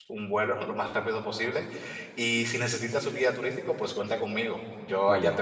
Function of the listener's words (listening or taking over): taking over